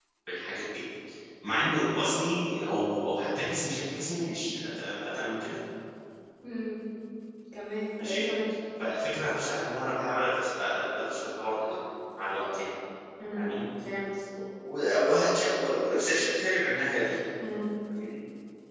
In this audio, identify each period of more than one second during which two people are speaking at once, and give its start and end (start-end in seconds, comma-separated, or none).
none